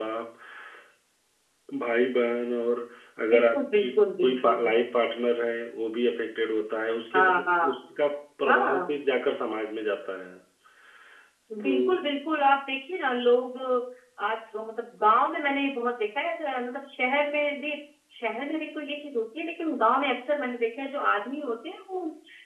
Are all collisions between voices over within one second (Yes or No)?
No